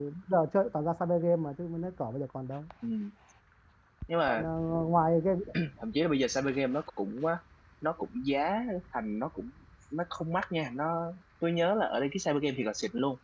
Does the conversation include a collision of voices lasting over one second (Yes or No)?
No